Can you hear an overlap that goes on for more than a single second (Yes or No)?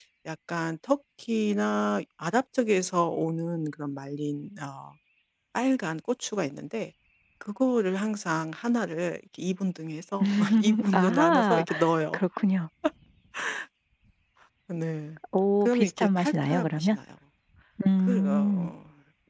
Yes